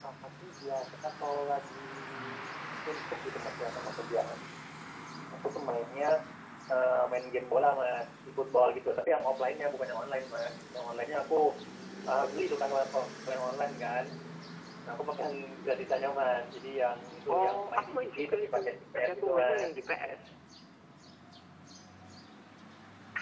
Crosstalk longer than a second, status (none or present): present